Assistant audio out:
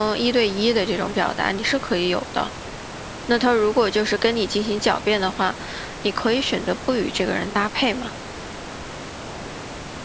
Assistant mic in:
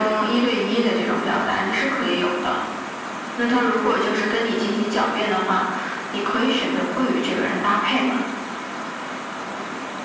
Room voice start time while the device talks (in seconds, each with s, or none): none